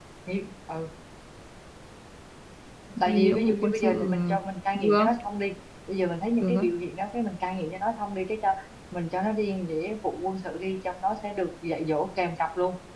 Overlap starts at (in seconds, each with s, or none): 3.0 s